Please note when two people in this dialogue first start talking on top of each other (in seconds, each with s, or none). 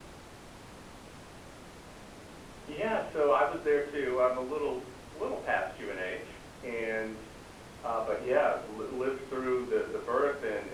none